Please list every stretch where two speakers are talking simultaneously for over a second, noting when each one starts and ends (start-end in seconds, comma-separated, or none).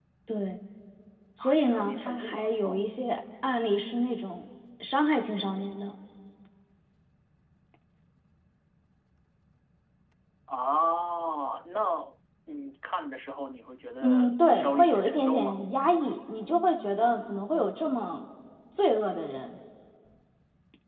1.4-2.9, 14.0-15.6